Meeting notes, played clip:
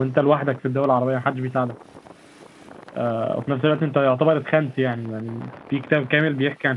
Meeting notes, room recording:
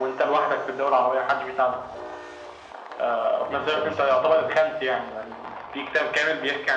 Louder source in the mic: echo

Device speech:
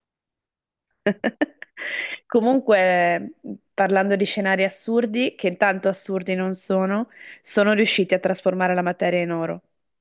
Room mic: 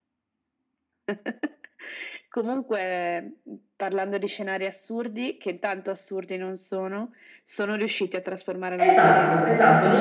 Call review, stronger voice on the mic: user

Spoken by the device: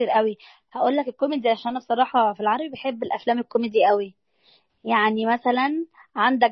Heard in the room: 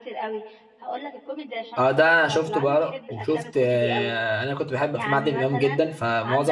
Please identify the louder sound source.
user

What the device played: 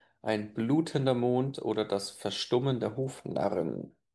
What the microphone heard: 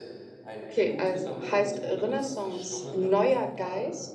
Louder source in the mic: user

